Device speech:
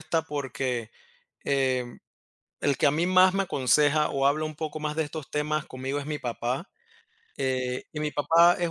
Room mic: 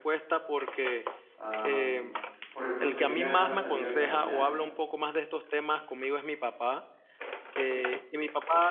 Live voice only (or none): am, por ejemplo, sería salir a caminar.